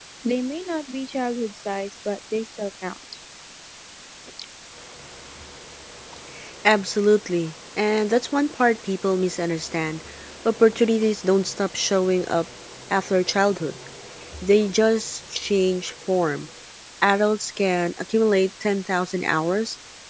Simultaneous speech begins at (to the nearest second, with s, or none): none